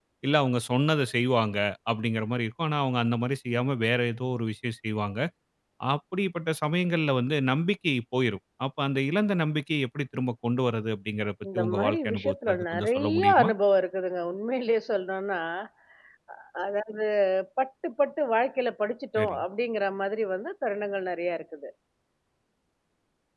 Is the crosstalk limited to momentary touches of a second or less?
No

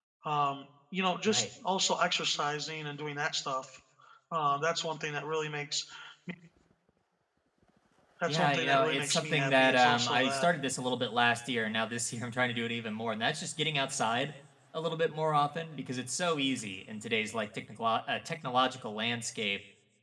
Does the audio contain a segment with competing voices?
Yes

